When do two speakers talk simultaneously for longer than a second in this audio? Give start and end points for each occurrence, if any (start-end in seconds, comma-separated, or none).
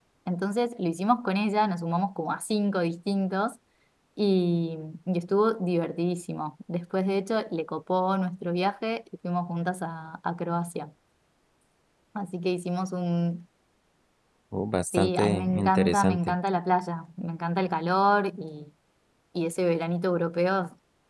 14.9-16.4